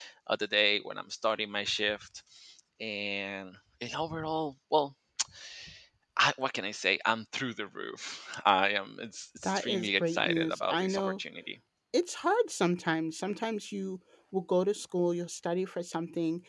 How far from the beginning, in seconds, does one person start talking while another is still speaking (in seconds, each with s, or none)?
9.4 s